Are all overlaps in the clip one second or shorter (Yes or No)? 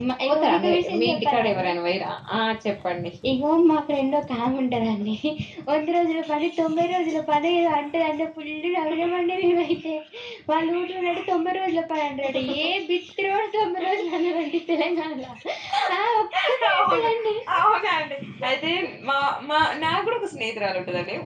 No